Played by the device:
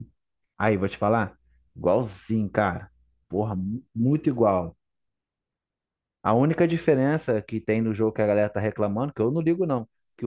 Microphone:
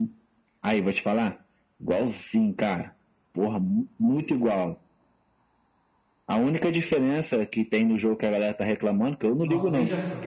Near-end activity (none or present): present